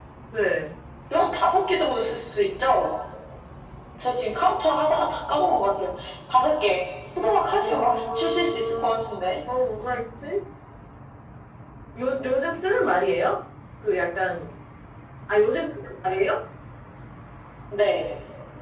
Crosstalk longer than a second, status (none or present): present